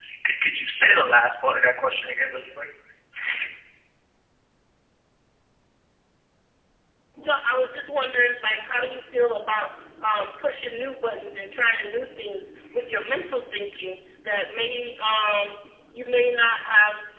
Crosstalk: none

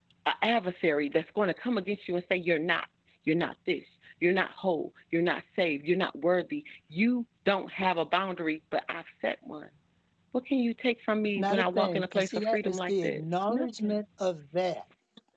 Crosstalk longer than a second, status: present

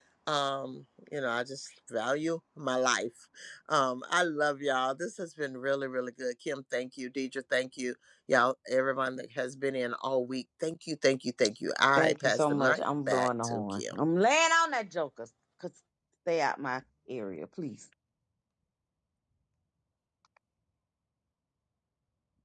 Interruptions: present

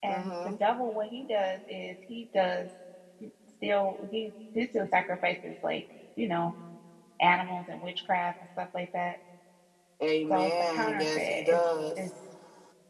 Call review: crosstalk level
present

